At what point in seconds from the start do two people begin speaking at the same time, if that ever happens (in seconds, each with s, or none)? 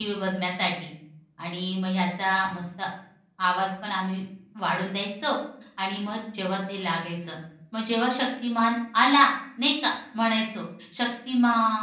none